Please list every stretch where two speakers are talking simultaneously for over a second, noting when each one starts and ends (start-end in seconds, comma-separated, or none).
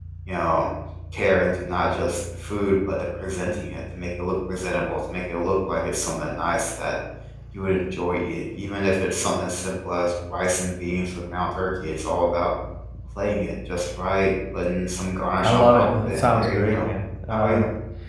15.4-16.9